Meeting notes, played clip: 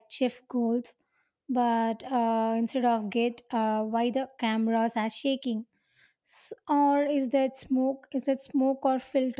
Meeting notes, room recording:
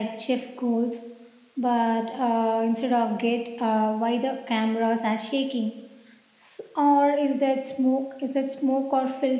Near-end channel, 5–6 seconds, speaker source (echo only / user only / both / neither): echo only